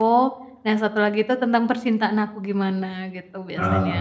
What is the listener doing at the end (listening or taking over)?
taking over